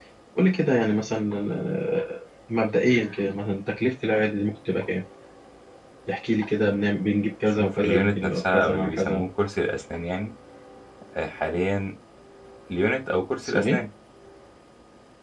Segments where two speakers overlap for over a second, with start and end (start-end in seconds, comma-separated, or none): 7.6-9.2